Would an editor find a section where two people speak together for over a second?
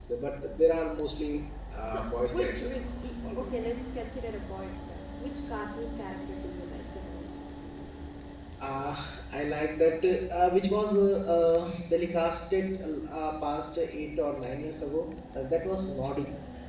Yes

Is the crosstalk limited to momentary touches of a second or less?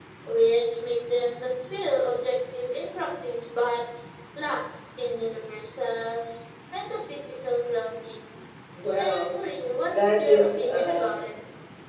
No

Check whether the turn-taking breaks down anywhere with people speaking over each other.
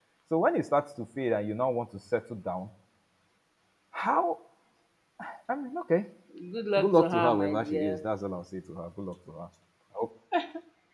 Yes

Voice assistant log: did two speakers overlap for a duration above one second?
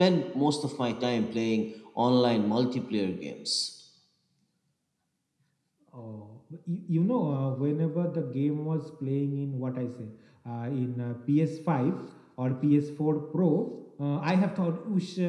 No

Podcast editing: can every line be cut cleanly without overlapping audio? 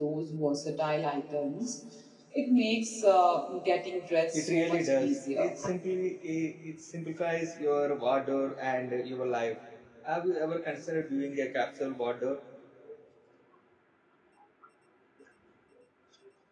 No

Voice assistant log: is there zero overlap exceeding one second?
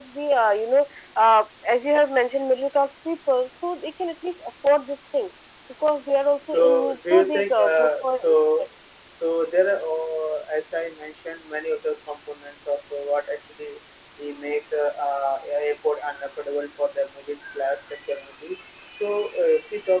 No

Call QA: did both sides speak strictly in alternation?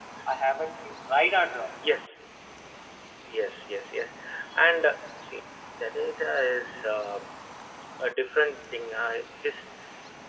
Yes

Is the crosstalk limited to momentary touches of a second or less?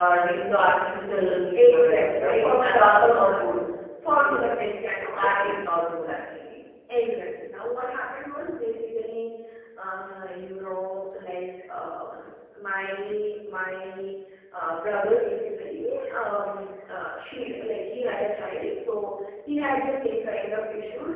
No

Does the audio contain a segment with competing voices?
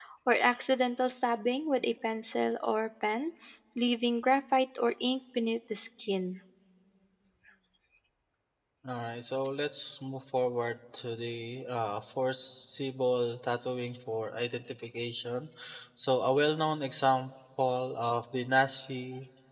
No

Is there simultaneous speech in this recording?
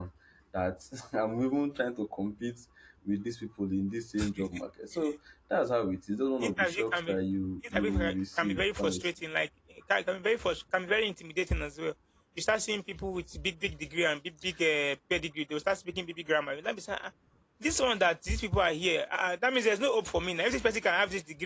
Yes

